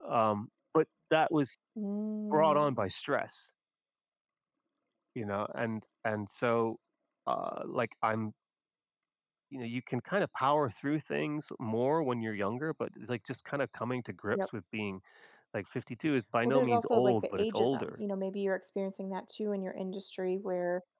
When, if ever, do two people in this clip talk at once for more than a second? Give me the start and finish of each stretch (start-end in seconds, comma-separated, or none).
16.4-17.9